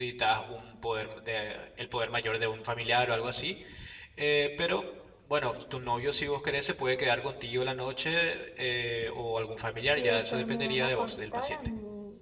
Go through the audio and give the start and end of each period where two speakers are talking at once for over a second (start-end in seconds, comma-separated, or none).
10.0-11.6